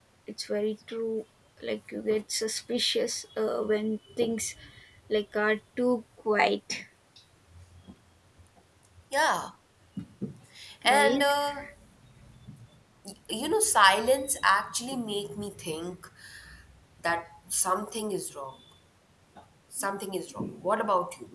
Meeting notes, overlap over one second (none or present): none